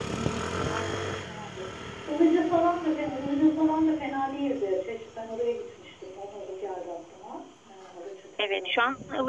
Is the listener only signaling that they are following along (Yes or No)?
No